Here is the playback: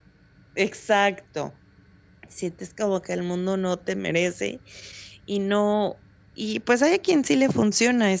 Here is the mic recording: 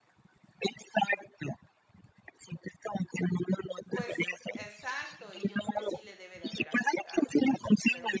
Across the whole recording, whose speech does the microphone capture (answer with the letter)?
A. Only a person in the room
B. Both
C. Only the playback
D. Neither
B